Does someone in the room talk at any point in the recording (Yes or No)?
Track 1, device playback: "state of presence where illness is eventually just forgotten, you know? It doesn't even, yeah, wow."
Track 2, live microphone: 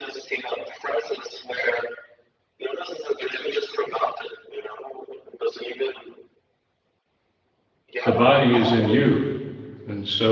Yes